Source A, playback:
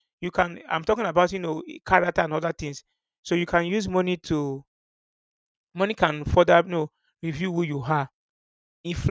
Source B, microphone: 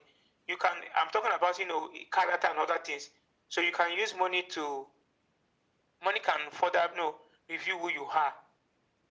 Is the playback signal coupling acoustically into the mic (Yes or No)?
Yes